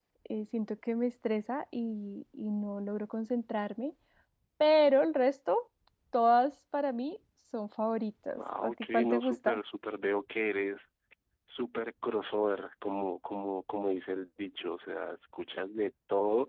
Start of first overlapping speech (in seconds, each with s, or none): 8.3 s